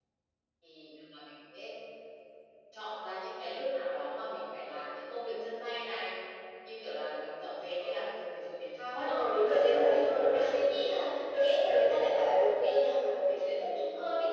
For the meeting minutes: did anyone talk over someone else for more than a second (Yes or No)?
Yes